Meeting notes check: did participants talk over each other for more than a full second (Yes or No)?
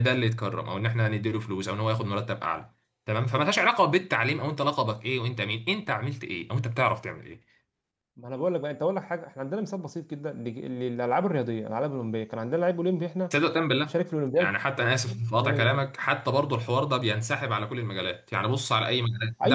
No